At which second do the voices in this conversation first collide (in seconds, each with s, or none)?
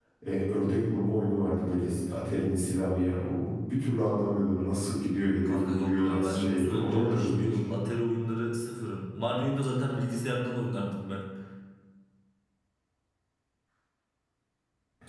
5.4 s